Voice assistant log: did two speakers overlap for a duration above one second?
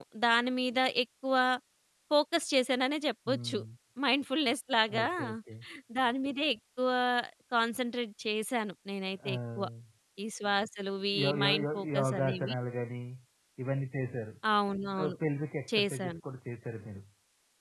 Yes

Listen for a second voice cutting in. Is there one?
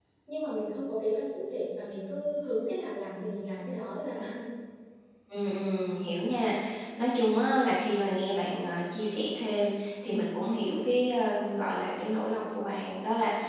No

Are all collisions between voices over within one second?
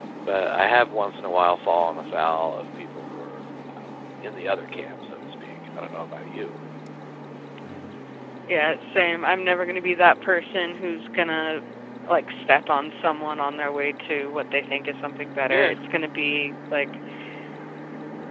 Yes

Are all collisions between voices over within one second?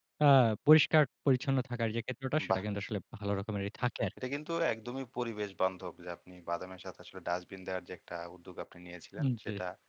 Yes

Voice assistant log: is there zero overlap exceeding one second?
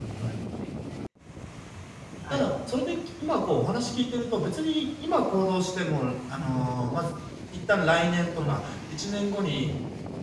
Yes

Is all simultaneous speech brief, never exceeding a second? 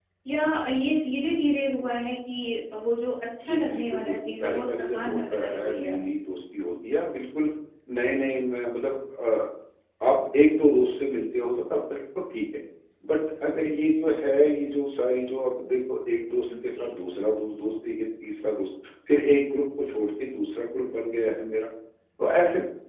No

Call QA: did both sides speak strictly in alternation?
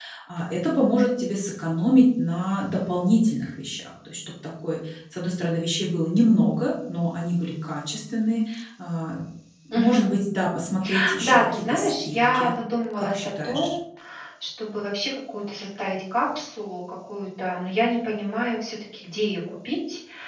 No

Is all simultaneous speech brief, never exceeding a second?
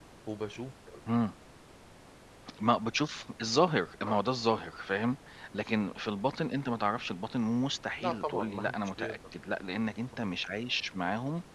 No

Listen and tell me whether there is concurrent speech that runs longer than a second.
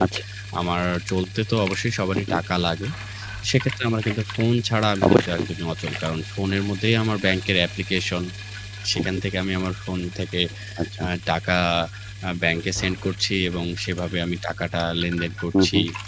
No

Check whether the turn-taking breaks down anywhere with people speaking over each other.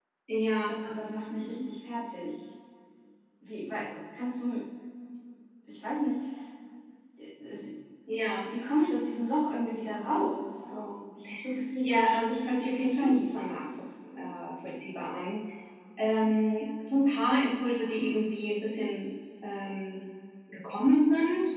Yes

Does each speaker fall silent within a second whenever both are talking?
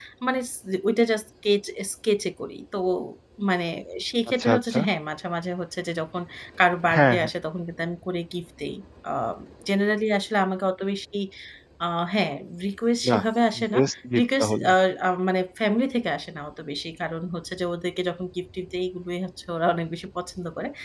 Yes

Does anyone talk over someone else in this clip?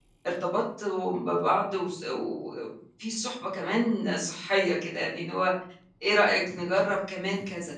No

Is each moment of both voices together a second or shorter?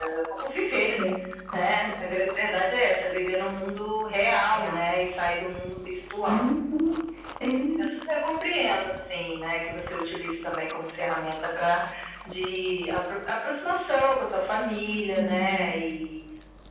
Yes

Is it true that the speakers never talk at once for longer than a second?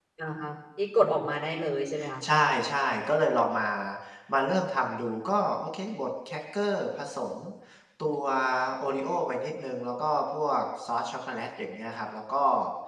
Yes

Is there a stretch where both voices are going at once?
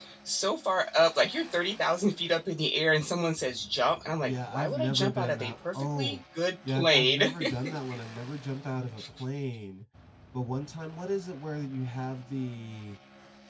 Yes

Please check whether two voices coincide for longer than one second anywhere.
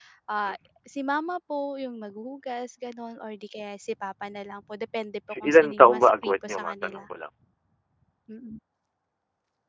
Yes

